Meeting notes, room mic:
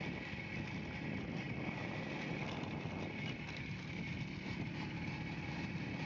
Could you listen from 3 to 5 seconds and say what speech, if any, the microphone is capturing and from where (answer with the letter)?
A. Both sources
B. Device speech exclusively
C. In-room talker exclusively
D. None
D